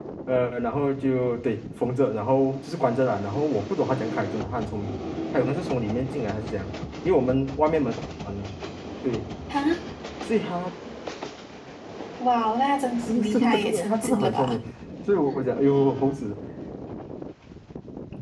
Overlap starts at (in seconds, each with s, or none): 13.1 s